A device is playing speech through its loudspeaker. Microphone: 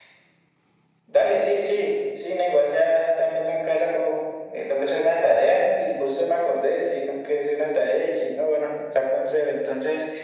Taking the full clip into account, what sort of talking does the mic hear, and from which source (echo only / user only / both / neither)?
echo only